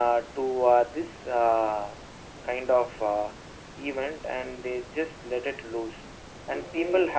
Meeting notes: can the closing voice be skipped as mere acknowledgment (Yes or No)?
Yes